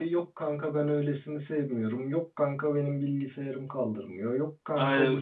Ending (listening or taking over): taking over